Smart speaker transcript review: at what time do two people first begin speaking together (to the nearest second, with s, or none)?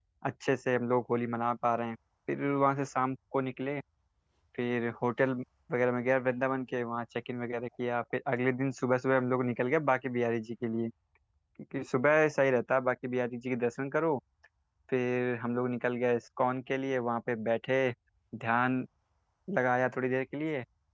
none